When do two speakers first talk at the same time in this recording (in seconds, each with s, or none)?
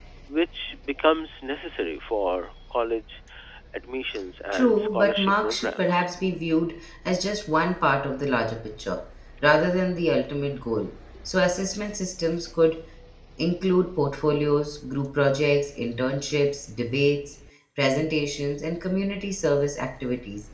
4.5 s